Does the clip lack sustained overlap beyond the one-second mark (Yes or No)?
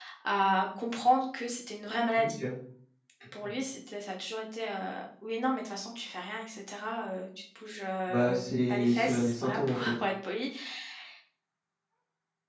No